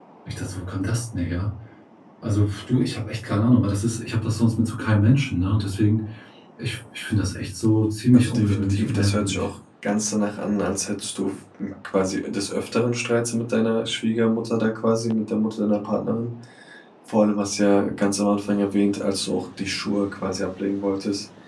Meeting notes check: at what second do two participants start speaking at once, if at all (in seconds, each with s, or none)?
8.1 s